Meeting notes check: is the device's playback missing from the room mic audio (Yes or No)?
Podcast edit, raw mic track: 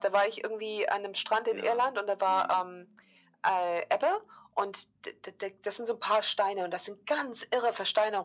No